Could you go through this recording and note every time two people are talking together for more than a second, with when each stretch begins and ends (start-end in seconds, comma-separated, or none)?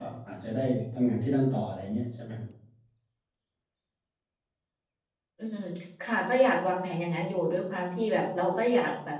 none